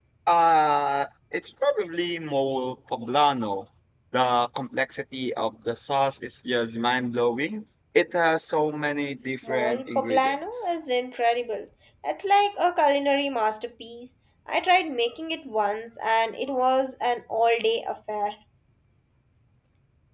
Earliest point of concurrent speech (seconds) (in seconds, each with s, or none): 9.4 s